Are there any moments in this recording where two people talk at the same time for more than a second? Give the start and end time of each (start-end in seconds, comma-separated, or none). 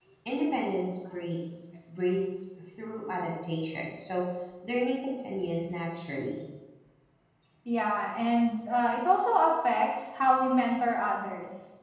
none